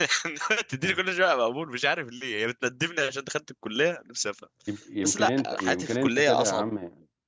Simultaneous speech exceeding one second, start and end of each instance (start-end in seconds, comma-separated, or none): 5.0-6.7